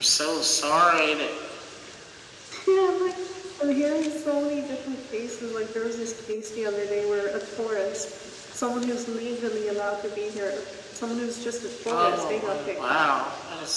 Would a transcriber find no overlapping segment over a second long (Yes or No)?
No